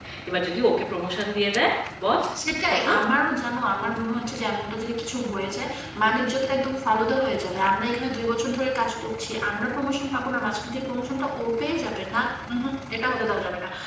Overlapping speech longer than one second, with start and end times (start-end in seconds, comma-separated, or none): none